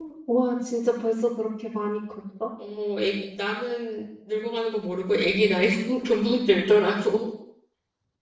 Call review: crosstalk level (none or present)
none